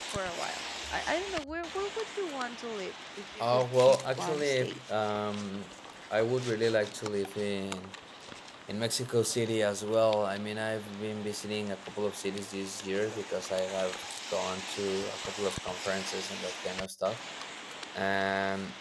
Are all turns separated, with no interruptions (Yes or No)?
No